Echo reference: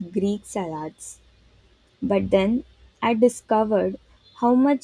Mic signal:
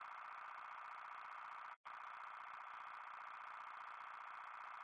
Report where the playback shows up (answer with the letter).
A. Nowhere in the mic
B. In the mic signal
A